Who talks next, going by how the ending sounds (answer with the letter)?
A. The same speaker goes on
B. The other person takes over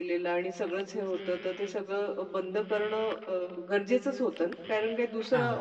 A